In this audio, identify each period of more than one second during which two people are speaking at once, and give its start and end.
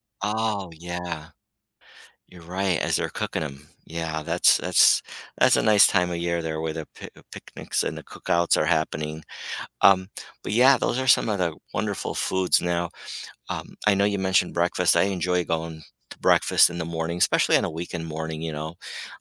none

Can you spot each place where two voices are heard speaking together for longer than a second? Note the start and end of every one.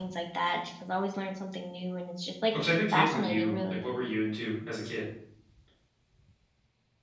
2.5-3.8

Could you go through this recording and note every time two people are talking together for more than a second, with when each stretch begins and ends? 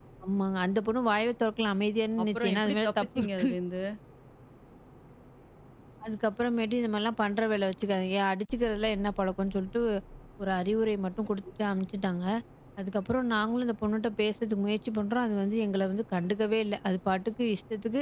2.2-3.5

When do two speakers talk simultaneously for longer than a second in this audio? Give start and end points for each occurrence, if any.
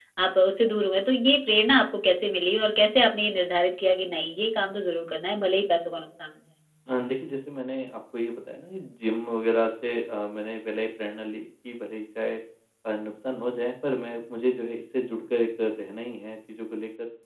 none

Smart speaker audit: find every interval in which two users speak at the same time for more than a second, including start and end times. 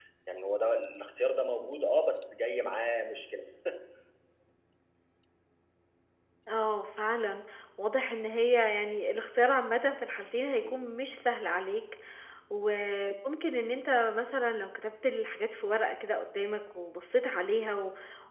none

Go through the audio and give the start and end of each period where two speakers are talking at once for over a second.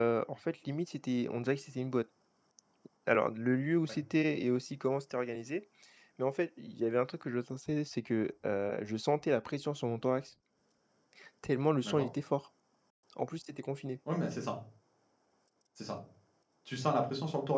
none

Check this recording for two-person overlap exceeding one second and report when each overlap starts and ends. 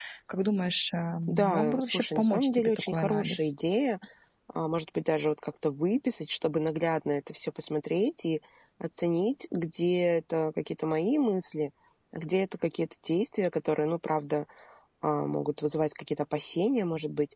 1.3-3.5

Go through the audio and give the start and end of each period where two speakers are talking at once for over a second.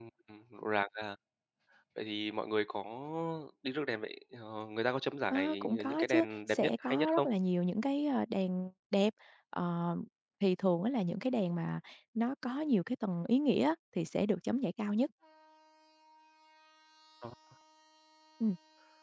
5.3-7.3

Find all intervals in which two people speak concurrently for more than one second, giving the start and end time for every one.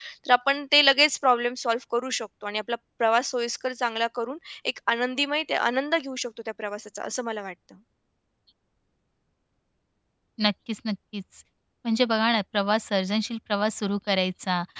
none

